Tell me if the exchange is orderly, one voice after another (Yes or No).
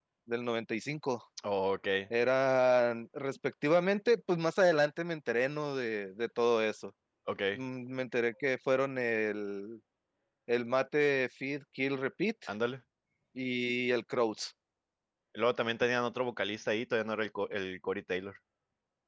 Yes